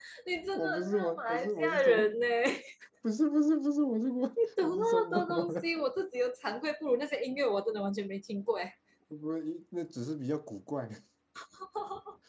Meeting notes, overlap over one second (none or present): present